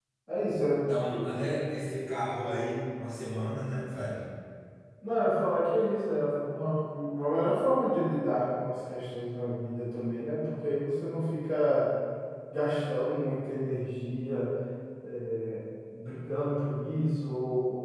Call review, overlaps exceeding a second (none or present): none